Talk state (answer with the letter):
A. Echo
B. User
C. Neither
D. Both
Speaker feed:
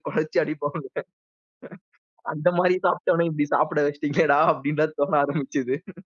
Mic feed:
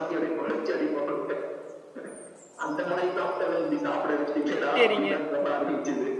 D